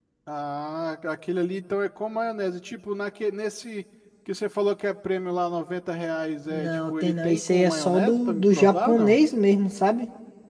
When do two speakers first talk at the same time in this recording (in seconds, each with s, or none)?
6.5 s